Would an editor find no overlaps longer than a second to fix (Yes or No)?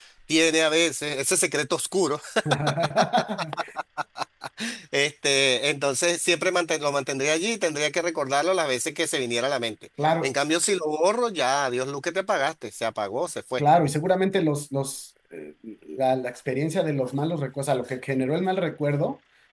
Yes